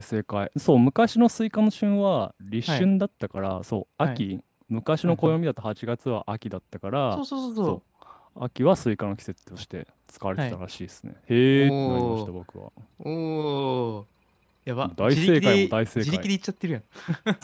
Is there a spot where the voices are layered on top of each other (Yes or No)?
Yes